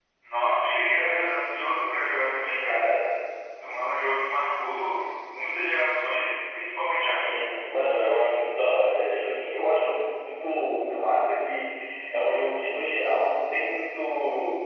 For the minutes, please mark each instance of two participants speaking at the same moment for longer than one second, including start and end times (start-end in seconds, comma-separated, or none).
none